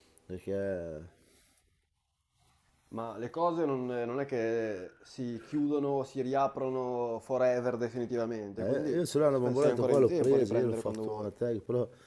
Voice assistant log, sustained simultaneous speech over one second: present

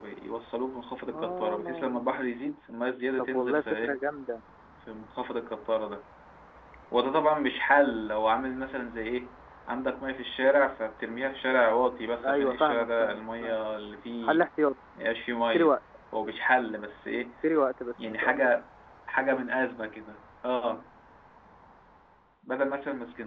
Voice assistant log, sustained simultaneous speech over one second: present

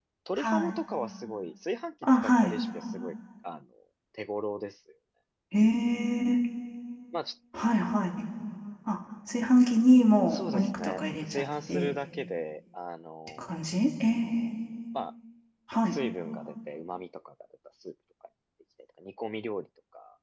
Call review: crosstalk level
present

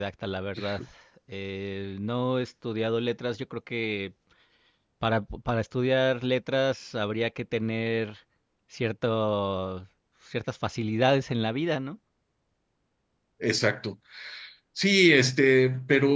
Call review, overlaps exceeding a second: none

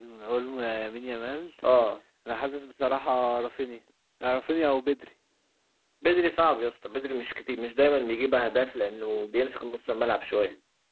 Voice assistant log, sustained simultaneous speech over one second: none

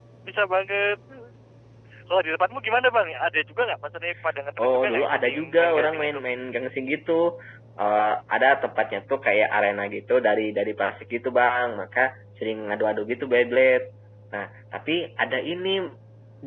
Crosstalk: present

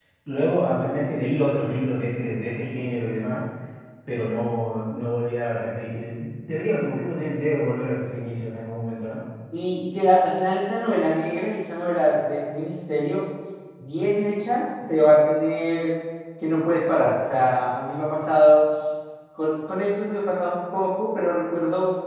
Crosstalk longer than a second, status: none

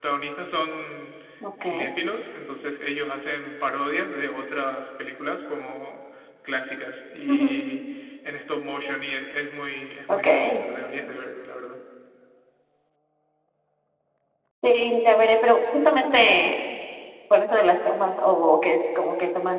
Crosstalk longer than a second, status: none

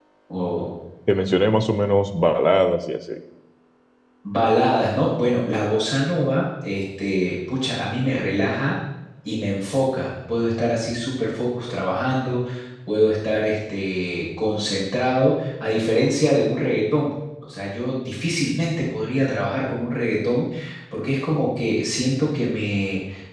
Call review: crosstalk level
none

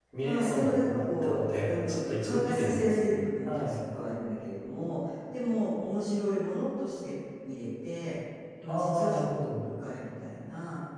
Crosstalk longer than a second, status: present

